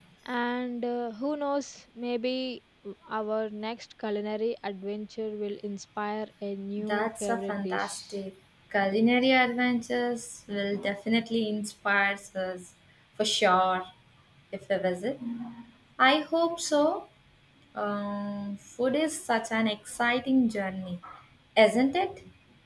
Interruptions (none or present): present